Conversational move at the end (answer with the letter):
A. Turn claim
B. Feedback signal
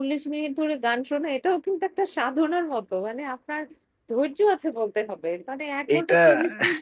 B